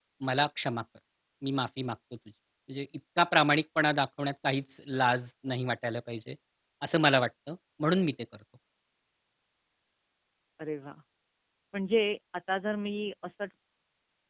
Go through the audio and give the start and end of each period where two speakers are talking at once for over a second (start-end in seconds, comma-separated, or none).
none